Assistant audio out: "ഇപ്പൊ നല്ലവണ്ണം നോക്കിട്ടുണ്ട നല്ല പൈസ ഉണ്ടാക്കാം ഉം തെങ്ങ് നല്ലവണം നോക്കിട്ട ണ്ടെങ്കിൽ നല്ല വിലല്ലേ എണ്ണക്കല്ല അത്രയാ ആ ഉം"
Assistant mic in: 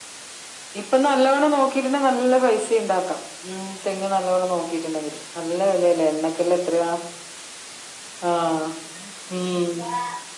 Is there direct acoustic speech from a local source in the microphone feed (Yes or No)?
No